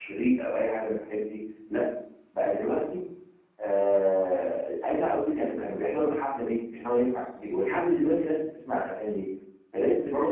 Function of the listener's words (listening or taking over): taking over